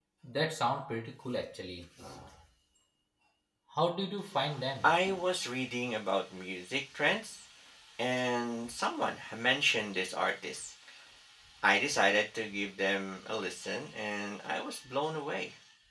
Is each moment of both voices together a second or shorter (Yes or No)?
Yes